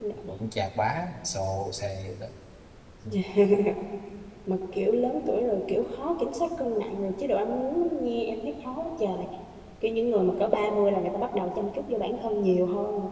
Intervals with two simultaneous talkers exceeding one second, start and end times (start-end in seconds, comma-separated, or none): none